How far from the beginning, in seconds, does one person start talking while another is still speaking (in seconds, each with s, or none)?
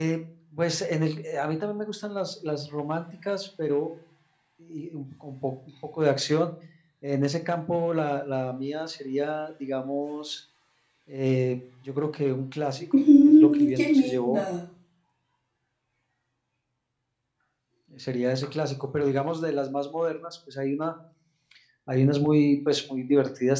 12.9 s